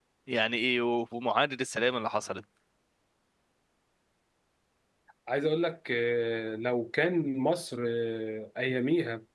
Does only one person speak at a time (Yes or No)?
Yes